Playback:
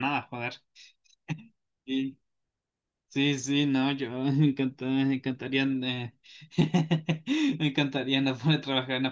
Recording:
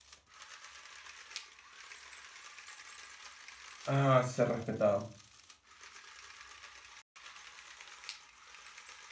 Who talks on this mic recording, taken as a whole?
user only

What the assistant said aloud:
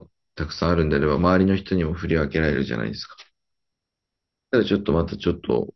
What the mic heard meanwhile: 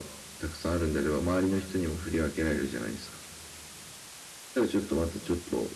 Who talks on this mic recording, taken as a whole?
echo only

